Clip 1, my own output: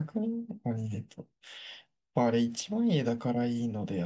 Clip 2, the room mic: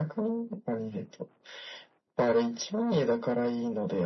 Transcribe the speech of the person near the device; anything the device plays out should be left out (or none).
none